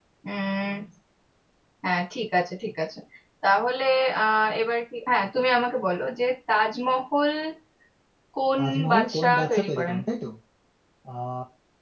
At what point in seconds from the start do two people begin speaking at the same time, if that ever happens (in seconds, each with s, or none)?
8.6 s